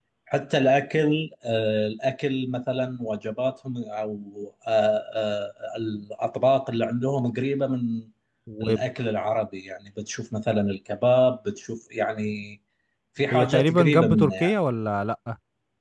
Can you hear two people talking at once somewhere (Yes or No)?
Yes